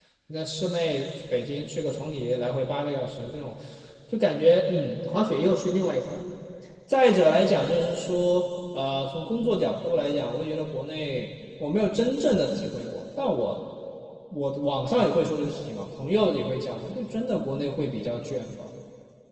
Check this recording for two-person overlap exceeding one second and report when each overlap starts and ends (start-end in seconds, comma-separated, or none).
none